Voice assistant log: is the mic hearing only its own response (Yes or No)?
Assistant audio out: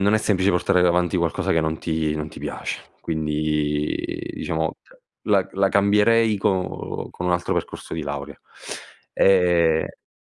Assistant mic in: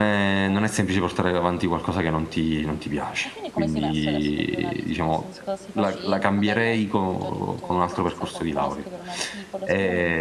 No